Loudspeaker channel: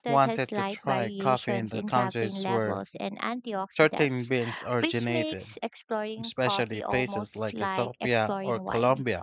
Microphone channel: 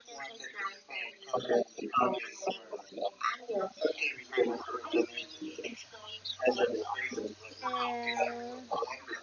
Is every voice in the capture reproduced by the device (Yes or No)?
No